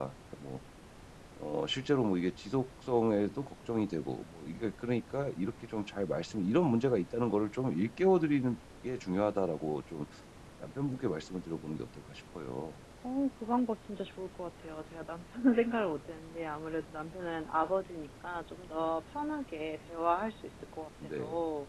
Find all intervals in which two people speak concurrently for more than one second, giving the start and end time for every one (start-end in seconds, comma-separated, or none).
none